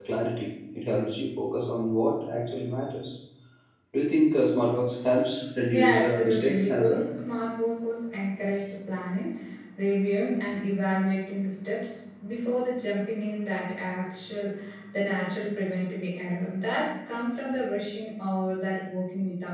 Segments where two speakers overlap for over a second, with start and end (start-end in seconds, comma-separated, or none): 5.7-7.0